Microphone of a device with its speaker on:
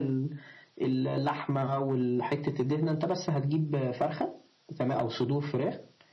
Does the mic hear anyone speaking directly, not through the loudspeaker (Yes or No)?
No